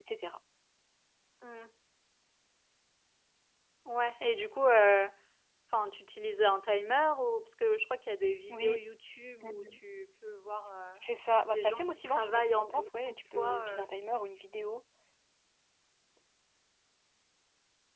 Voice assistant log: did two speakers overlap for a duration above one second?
Yes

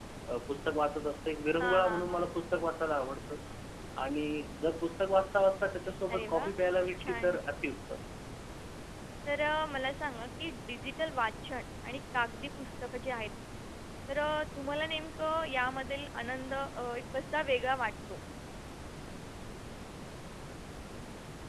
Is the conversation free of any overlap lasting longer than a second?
No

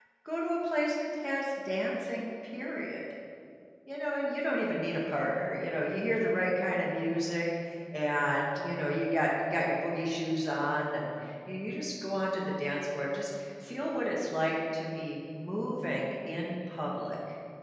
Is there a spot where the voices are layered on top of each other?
No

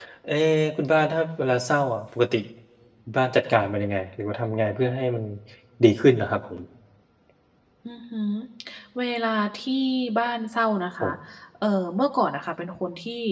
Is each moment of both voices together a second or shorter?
Yes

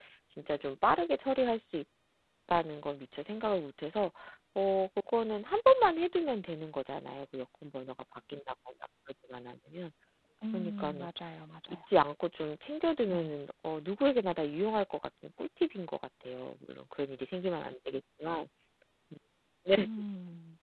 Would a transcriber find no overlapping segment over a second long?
Yes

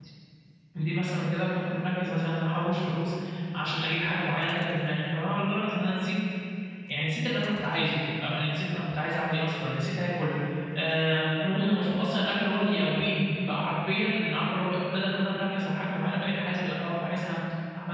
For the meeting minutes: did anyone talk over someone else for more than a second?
No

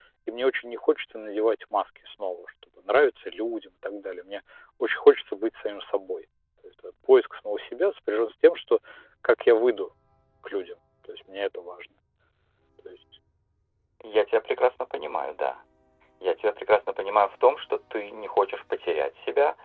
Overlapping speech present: No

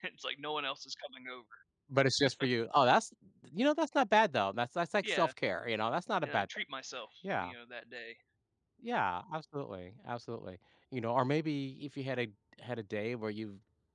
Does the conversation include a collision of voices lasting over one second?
No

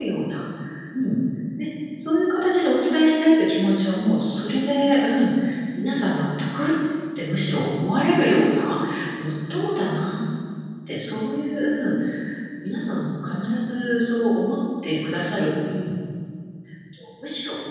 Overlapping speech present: No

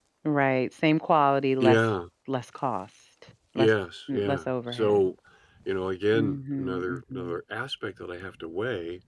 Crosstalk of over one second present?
Yes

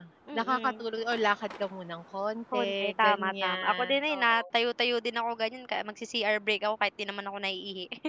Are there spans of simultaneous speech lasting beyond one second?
Yes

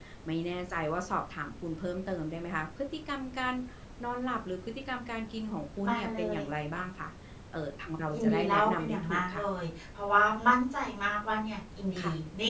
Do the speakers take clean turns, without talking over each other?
No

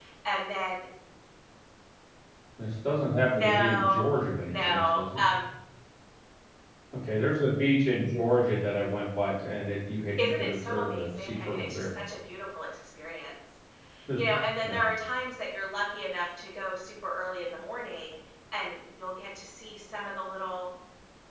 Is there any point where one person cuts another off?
Yes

